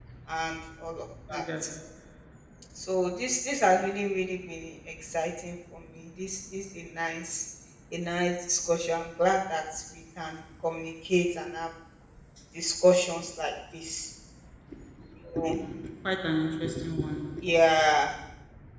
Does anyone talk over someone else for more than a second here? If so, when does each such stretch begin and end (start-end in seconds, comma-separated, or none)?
none